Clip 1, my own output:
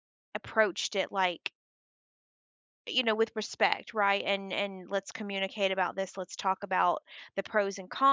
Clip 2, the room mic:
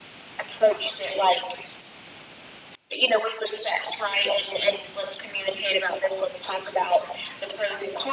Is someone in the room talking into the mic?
No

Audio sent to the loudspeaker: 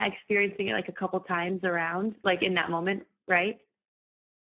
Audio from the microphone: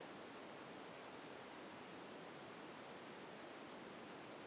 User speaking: No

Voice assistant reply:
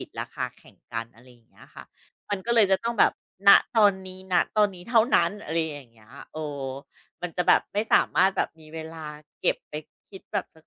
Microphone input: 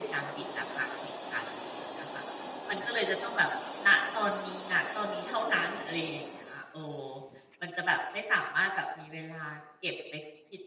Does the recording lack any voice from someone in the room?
Yes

